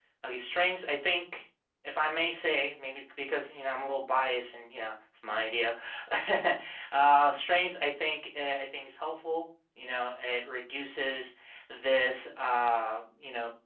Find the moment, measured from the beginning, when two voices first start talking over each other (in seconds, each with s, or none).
none